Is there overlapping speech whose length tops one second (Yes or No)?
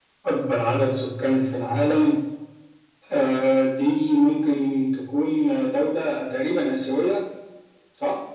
No